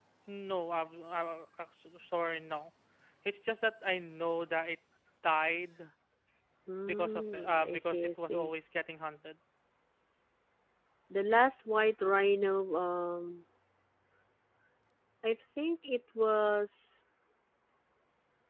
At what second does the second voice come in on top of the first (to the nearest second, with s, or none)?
7 s